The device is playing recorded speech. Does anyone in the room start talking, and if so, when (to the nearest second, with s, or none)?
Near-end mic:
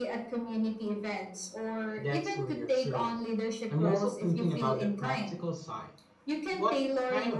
2 s